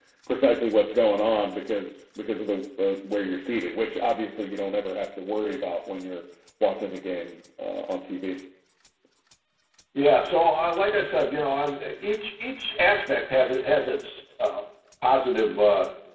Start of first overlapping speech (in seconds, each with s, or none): none